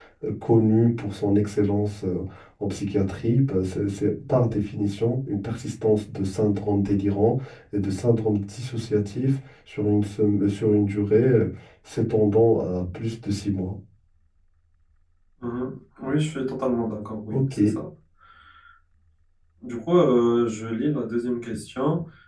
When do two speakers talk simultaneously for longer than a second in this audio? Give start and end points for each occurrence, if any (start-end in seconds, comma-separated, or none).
none